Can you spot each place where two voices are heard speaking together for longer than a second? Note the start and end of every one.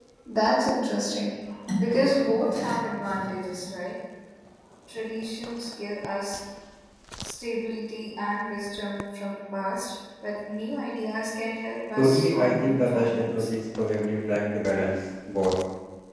12.0-13.4

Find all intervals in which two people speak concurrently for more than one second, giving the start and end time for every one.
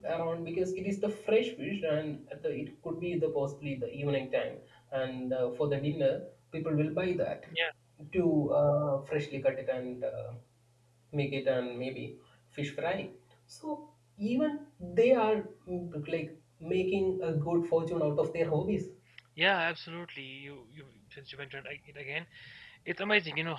none

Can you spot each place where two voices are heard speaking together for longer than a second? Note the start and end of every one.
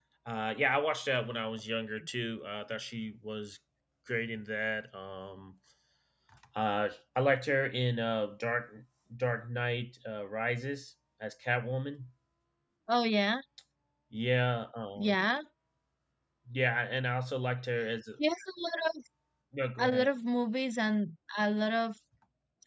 none

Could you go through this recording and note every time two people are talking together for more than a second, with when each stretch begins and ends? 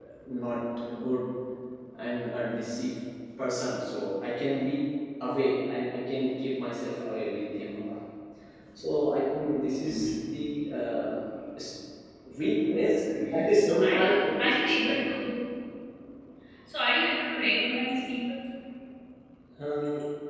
13.3-15.1

